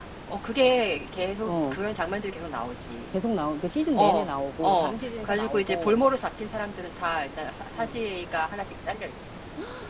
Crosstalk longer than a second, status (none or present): present